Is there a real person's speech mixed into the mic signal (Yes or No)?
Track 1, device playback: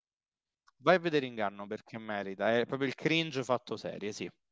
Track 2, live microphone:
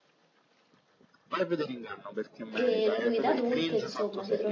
Yes